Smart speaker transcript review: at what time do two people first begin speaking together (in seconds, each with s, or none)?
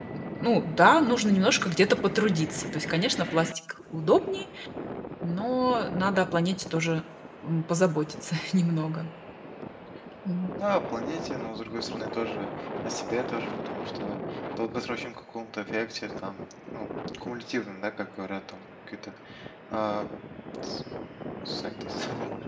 none